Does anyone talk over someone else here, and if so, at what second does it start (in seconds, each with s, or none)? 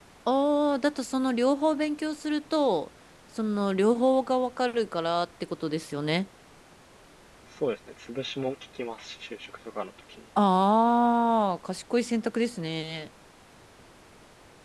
none